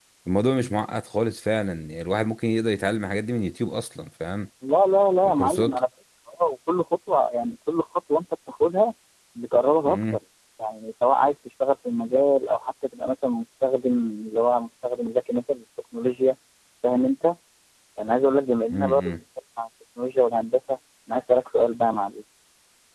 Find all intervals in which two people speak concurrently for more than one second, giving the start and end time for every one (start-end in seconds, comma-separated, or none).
none